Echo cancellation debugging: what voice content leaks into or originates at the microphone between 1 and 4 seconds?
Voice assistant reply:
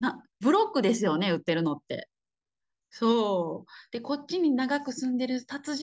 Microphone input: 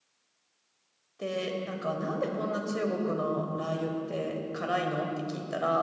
user only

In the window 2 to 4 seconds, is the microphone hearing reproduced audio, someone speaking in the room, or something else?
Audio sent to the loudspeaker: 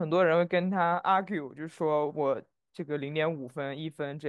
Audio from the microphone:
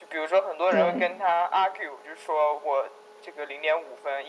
echo only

